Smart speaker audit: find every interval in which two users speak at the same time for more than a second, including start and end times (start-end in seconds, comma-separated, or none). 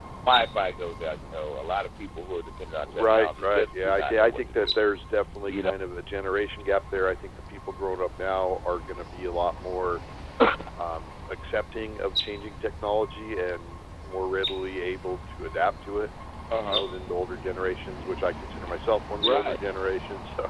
2.9-4.7